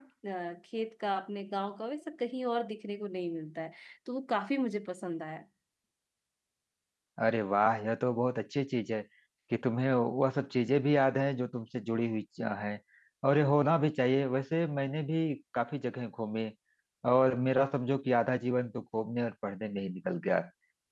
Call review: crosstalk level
none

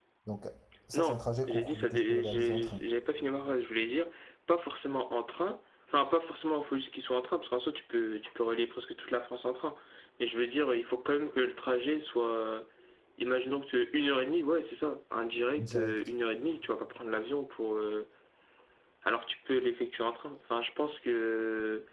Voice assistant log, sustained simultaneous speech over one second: present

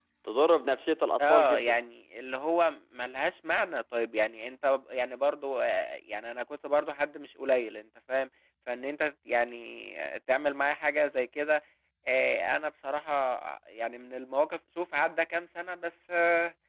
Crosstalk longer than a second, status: none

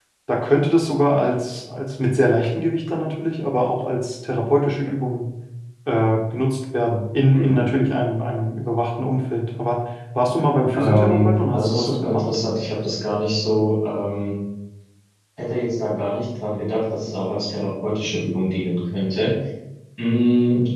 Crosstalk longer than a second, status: present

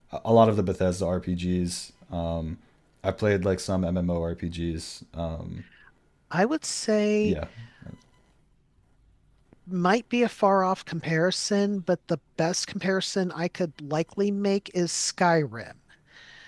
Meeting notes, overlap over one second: none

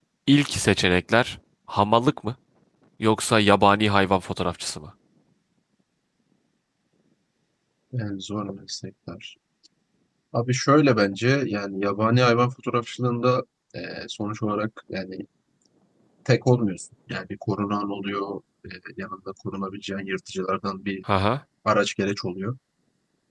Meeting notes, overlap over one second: none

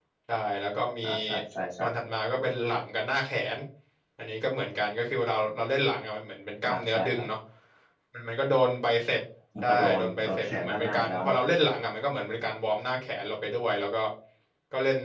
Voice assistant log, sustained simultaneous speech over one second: present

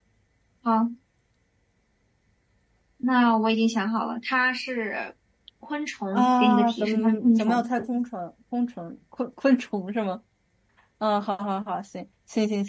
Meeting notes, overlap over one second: present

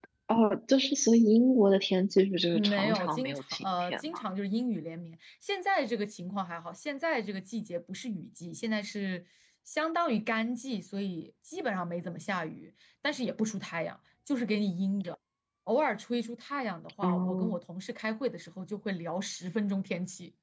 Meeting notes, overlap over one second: present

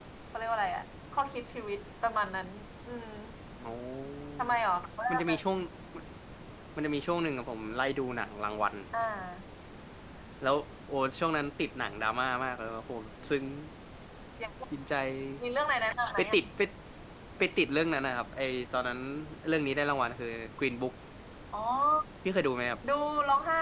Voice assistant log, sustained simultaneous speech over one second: none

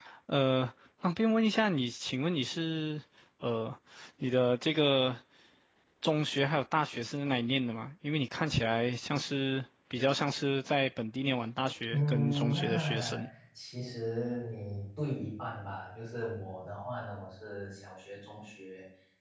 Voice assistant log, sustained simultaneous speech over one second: present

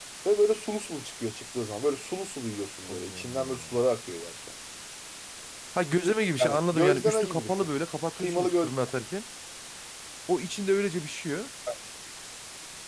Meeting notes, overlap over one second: present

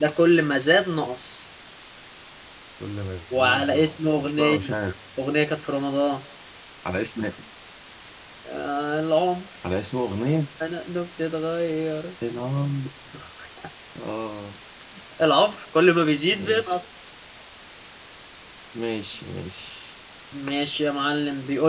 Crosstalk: present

